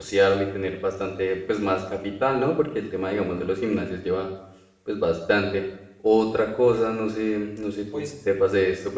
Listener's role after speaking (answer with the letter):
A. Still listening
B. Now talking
A